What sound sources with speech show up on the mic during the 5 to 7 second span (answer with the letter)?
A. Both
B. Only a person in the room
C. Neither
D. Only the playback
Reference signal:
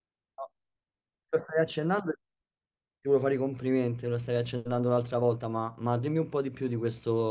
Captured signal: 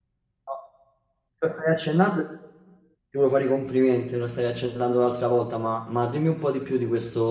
D